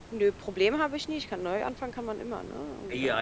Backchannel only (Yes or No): No